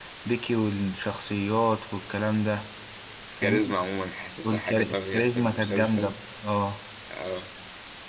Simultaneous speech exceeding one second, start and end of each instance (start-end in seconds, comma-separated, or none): 4.4-6.1